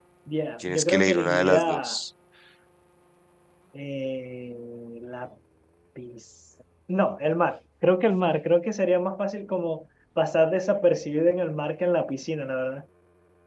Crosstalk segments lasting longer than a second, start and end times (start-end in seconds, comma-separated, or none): 0.6-2.0